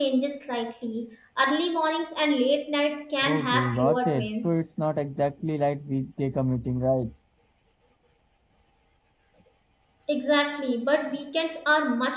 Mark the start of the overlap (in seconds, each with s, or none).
3.2 s